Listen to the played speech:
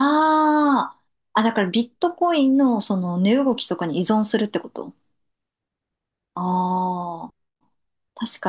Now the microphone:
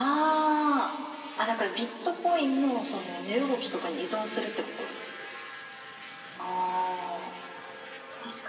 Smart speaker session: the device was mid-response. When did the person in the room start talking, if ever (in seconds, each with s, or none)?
none